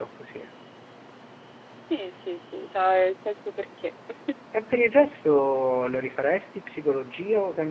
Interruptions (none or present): none